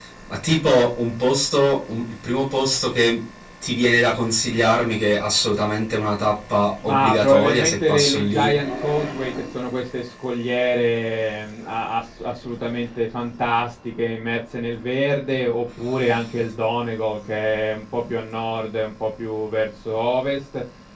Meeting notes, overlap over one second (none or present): present